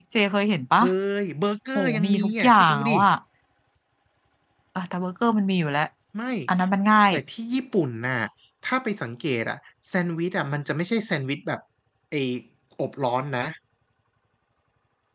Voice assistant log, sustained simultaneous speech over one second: present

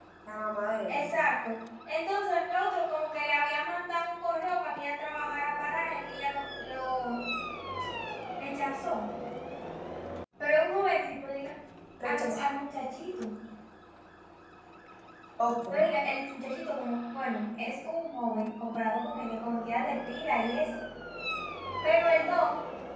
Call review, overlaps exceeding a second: none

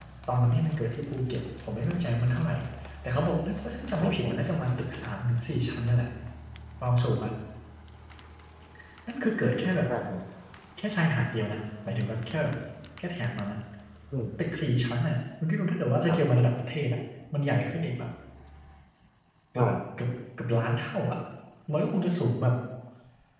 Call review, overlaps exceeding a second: none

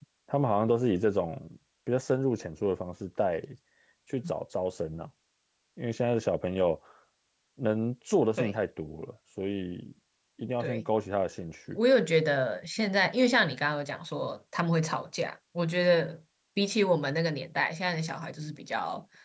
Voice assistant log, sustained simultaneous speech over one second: none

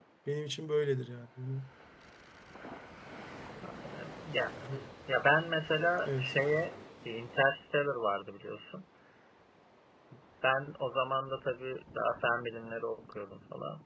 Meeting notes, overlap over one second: none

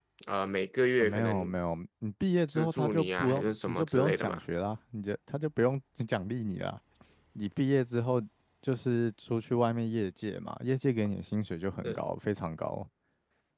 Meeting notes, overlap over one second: present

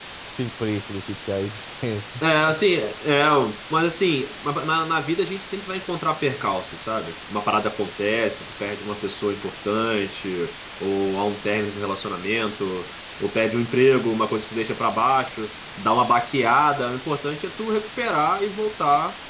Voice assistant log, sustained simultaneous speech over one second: none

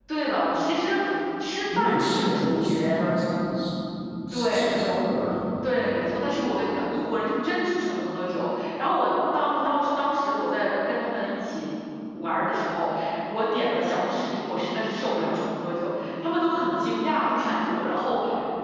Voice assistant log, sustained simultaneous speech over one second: present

